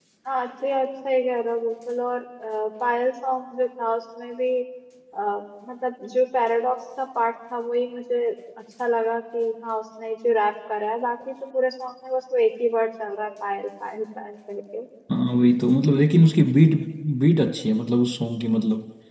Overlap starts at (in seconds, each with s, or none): none